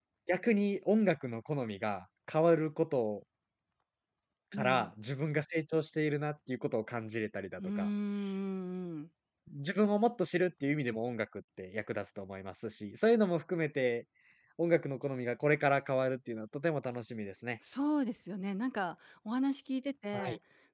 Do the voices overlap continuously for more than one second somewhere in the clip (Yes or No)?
No